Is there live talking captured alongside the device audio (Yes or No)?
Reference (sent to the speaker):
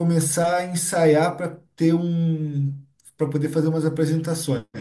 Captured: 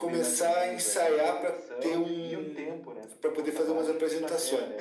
Yes